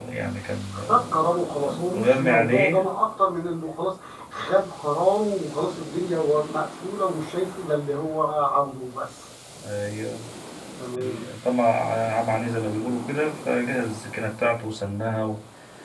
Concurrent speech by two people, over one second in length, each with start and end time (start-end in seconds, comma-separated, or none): 1.6-2.9